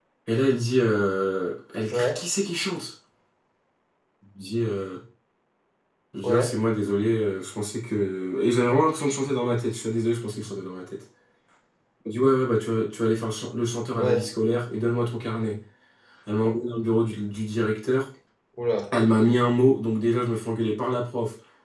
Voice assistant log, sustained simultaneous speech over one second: none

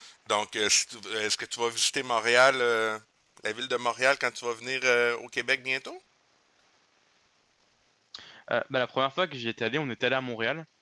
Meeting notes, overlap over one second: none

